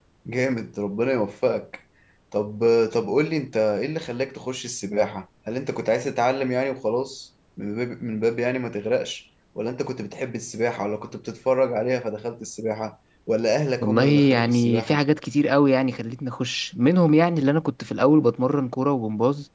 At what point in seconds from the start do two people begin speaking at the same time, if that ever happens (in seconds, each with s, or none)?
13.8 s